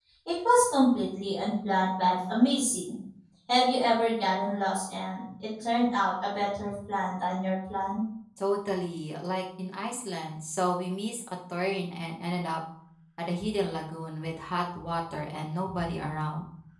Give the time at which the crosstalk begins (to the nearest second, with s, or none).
none